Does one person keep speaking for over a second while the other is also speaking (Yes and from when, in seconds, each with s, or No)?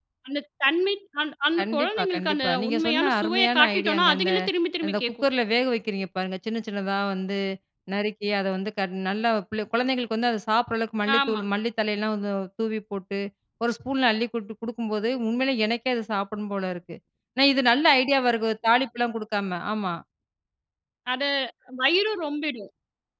Yes, from 1.6 s